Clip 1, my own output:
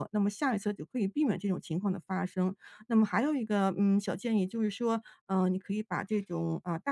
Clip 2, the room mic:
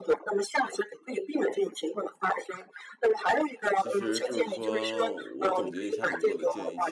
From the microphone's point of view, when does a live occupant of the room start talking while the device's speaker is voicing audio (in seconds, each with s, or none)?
3.7 s